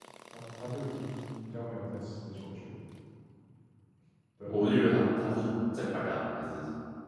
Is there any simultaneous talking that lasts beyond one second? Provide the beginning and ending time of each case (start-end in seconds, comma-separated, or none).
none